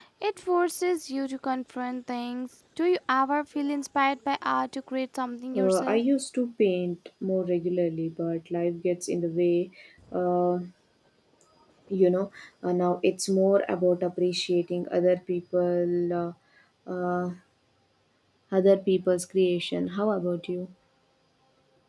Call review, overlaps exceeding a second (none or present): none